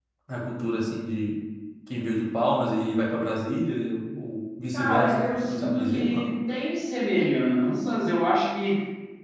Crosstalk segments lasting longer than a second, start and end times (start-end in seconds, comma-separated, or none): 4.7-6.2